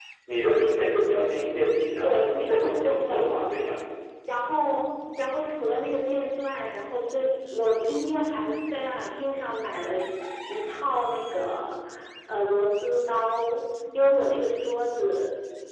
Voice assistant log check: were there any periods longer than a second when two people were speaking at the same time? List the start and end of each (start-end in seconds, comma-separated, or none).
2.0-3.6